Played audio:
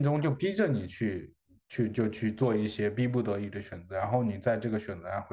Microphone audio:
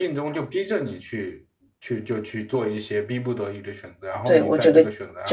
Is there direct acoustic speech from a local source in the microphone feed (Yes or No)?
Yes